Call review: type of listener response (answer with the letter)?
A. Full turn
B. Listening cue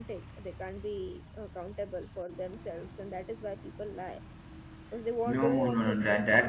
A